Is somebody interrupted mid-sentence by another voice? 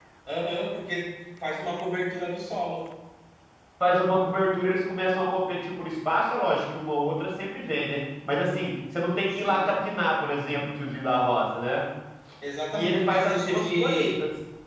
Yes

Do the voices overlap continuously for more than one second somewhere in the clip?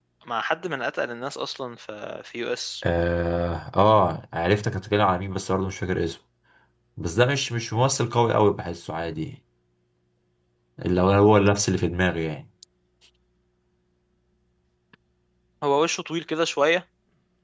No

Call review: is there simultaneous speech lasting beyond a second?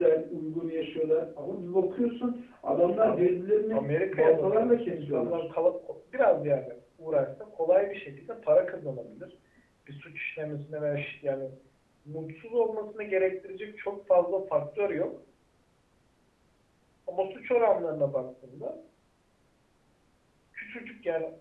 Yes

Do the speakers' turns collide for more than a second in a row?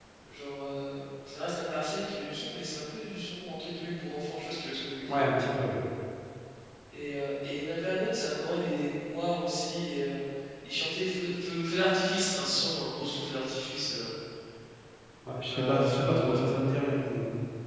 Yes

